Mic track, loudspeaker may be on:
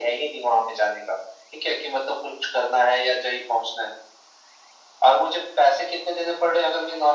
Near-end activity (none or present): none